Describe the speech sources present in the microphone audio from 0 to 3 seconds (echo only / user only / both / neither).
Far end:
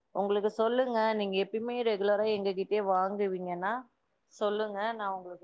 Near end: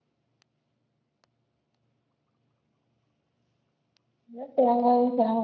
neither